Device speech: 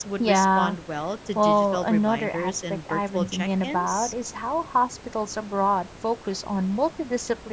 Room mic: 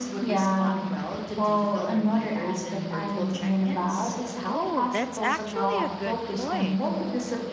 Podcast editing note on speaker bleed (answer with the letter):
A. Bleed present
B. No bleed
A